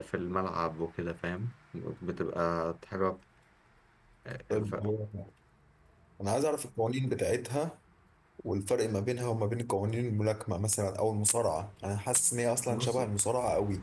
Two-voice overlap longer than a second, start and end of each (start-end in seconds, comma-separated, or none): none